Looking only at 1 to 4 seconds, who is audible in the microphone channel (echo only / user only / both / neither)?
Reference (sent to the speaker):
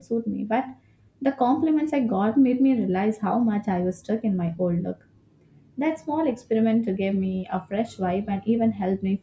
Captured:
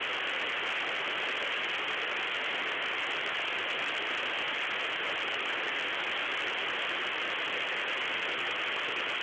neither